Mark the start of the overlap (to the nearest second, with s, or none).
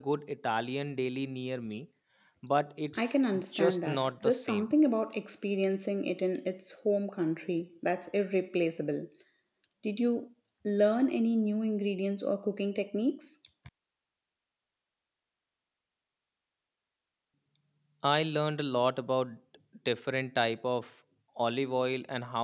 3 s